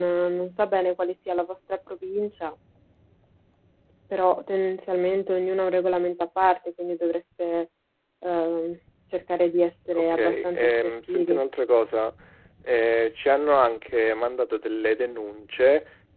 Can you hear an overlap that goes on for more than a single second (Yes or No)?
Yes